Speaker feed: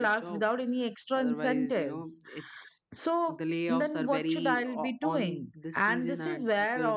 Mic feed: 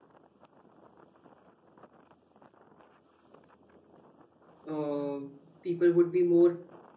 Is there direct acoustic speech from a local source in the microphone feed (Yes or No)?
Yes